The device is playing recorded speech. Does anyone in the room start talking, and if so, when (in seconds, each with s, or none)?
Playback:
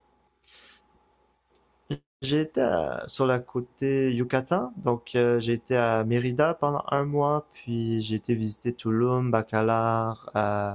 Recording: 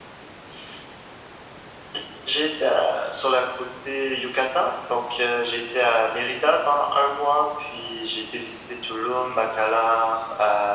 none